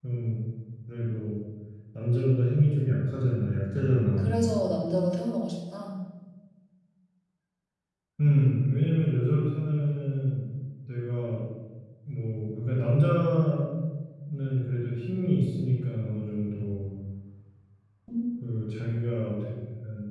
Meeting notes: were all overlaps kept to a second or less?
Yes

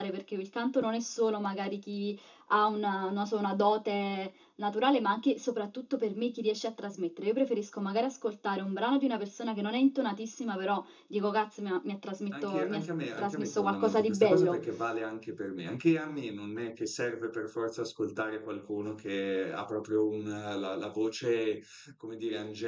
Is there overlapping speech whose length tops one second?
Yes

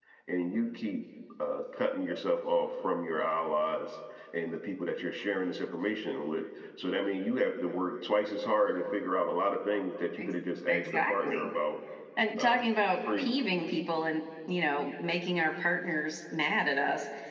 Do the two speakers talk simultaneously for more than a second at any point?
Yes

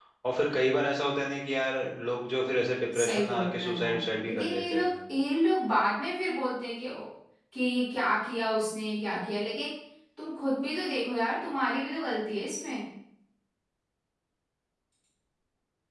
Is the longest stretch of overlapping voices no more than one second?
No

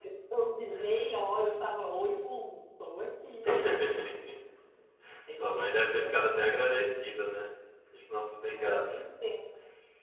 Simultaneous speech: Yes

